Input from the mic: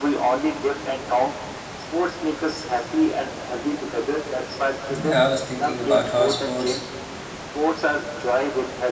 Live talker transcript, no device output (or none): Yeah, I was thinking about how sports,